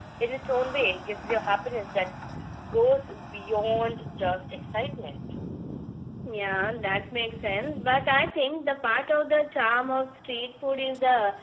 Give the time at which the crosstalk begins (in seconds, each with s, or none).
none